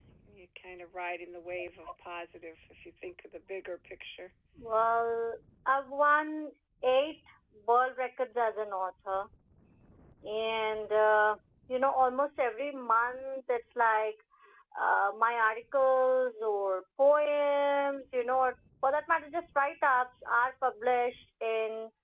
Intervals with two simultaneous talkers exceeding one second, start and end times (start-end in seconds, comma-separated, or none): none